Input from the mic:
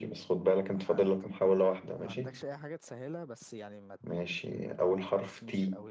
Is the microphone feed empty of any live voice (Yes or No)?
No